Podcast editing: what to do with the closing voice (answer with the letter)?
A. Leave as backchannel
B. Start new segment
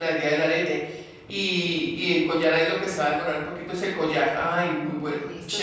B